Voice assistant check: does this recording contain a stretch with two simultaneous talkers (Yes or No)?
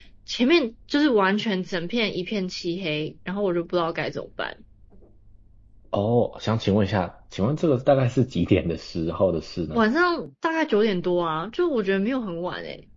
No